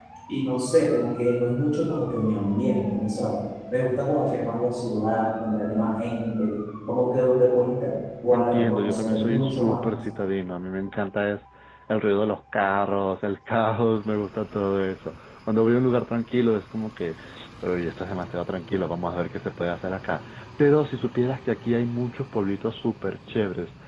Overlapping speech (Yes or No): Yes